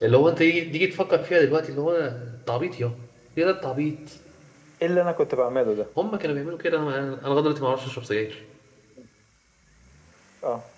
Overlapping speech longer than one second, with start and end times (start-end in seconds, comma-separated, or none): none